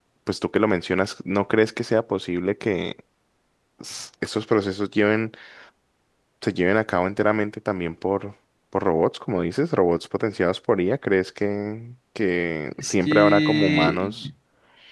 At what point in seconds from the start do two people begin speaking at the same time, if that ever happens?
12.8 s

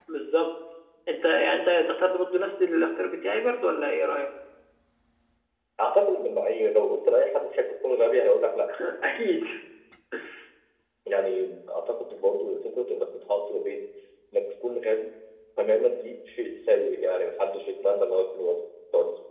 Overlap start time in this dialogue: none

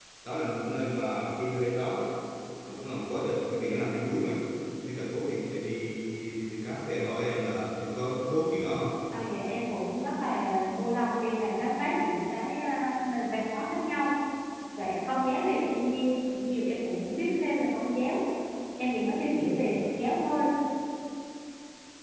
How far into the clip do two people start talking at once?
none

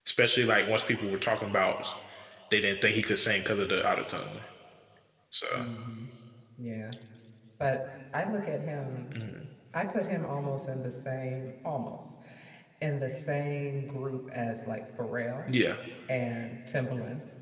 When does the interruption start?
none

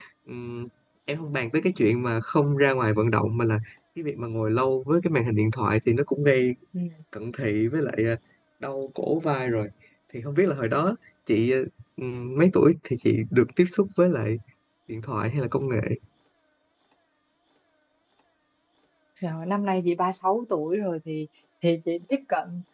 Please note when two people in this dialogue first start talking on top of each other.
none

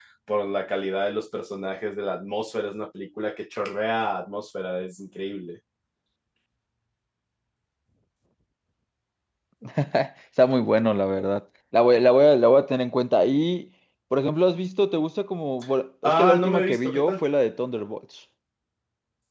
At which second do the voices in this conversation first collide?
16.0 s

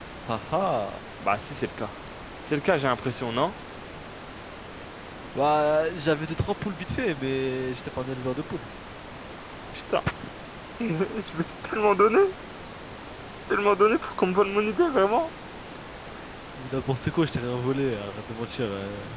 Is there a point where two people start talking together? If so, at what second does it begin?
none

